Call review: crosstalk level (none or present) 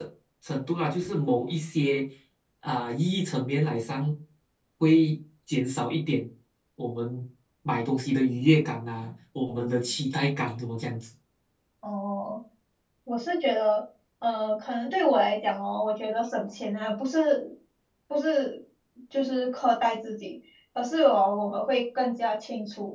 none